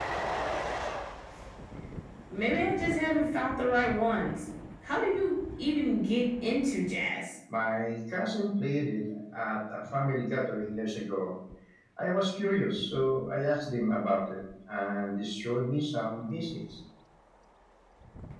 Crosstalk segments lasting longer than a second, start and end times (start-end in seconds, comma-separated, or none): none